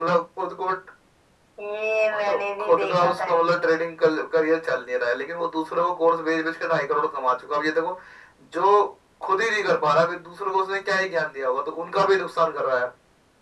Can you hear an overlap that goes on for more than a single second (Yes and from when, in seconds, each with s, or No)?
Yes, from 2.1 s